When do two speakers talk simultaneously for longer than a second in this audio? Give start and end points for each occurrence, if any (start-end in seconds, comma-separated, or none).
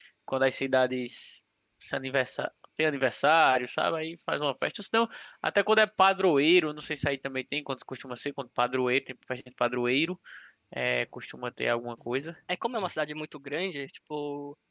none